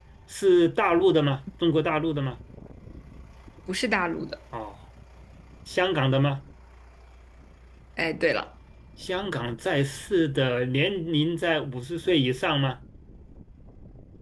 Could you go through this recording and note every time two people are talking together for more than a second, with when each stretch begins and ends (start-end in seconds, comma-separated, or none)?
none